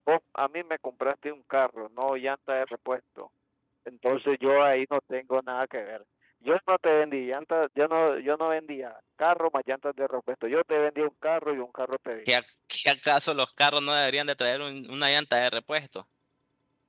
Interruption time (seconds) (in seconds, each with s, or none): none